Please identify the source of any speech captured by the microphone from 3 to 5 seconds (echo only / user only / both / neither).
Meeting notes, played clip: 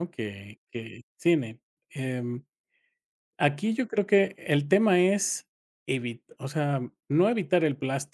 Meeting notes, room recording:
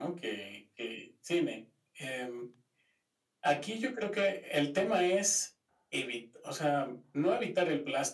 echo only